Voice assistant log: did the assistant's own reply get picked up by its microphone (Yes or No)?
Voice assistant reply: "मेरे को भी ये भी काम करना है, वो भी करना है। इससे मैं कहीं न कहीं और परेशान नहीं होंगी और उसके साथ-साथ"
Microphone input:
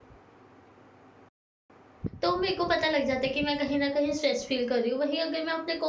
No